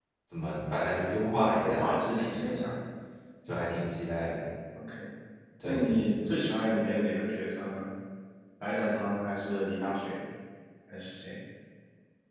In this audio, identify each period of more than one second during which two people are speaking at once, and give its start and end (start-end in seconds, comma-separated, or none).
1.2-2.6